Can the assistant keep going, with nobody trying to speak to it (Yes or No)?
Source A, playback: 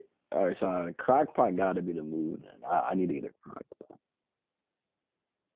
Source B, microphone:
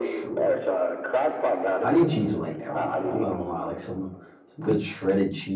No